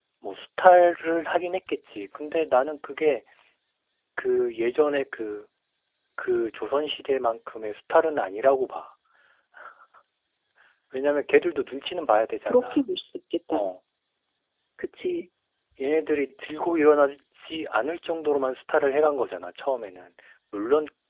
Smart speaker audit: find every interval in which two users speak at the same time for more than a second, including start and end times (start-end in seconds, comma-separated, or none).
none